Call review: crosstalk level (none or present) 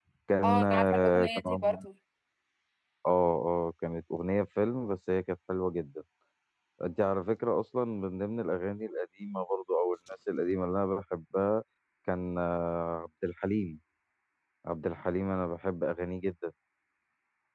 present